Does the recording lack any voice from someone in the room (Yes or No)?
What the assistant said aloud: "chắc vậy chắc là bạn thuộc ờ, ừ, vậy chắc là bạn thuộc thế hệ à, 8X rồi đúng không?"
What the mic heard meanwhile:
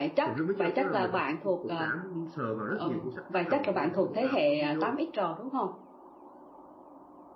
No